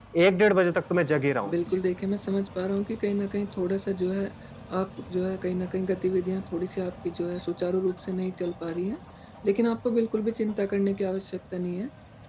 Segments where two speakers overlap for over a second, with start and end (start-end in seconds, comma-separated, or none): none